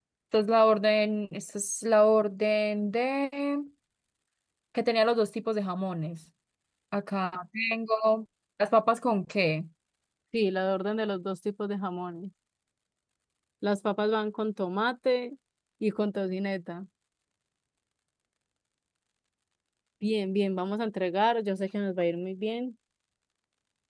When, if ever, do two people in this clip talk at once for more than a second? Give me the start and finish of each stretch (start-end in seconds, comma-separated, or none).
none